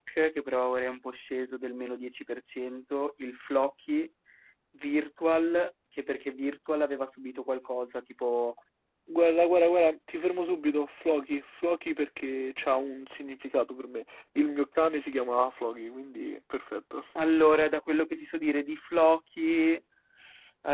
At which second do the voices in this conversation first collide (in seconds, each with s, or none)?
none